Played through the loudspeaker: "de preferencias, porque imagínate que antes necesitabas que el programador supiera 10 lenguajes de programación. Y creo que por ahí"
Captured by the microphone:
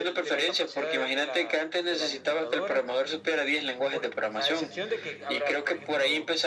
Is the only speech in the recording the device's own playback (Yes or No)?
No